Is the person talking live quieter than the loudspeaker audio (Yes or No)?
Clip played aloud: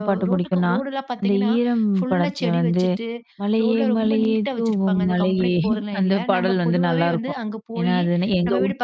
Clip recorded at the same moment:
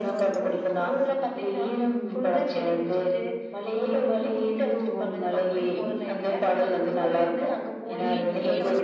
Yes